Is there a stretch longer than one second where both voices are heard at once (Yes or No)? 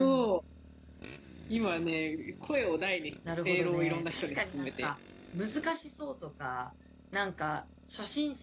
Yes